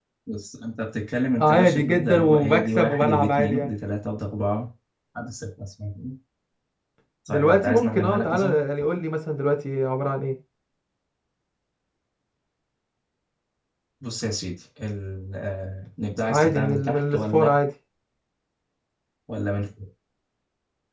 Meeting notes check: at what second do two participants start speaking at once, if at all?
1.4 s

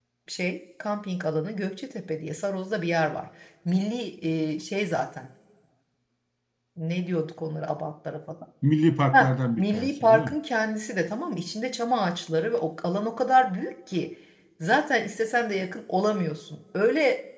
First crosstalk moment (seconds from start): 9.1 s

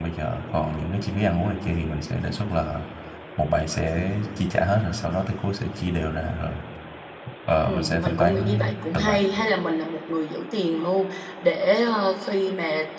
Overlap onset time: 7.6 s

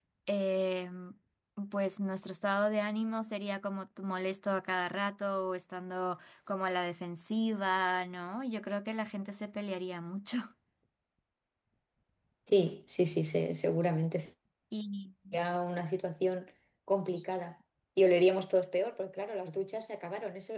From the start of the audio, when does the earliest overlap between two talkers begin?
none

